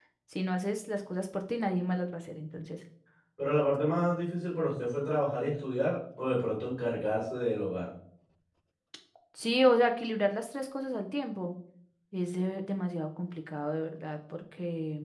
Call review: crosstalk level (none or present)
none